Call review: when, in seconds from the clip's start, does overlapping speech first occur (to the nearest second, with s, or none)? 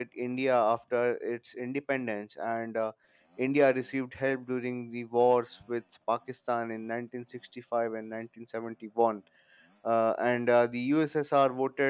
none